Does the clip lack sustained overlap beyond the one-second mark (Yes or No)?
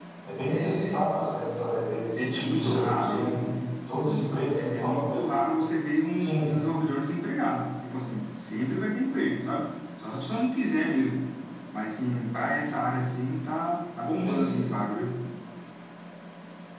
No